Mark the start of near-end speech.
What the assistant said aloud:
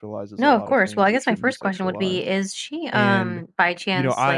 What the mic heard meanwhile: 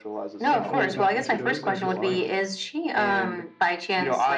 0.4 s

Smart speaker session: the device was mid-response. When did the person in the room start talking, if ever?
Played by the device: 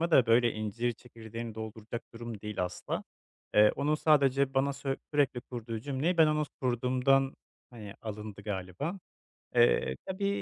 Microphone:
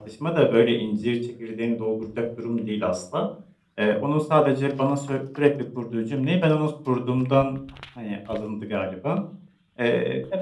none

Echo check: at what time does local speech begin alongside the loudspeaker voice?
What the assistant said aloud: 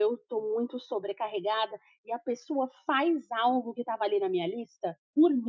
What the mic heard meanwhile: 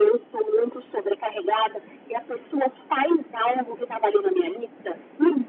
none

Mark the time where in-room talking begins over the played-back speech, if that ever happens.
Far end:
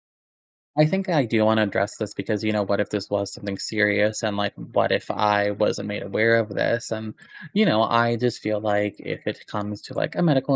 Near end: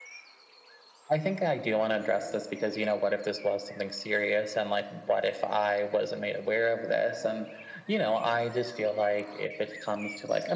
none

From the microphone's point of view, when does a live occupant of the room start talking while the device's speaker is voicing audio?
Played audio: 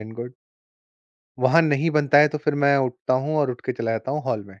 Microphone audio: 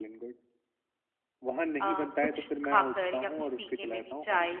1.8 s

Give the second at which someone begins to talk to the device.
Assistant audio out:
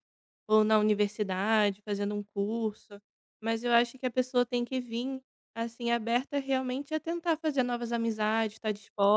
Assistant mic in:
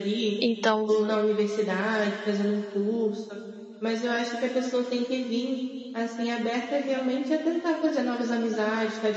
0.4 s

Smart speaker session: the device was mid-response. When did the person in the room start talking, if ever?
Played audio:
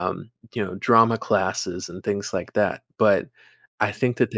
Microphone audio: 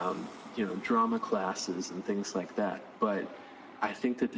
none

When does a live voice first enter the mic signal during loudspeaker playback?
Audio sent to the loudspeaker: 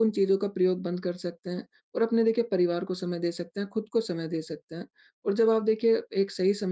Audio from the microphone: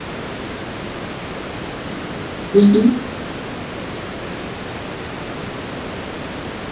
2.5 s

